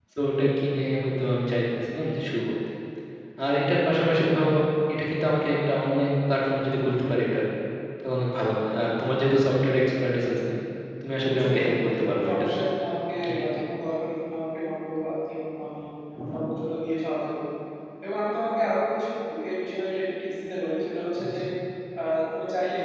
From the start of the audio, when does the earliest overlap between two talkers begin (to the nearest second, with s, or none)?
11 s